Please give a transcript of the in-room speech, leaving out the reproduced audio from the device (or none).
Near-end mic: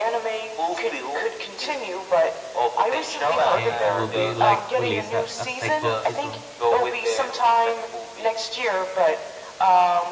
eh, it will be like release a, a second season.